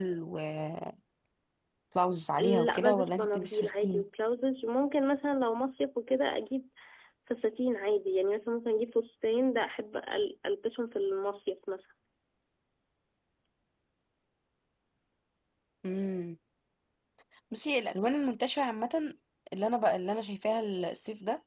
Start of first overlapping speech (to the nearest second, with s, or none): 2 s